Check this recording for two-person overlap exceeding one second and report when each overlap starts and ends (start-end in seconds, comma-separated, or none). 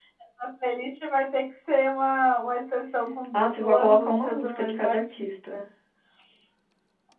3.3-5.6